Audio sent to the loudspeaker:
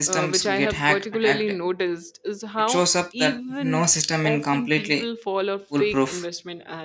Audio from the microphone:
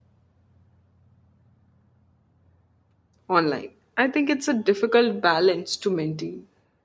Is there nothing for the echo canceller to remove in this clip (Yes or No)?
Yes